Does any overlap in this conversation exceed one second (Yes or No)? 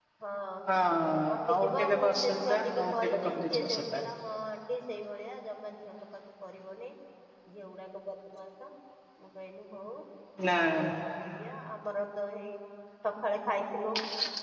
Yes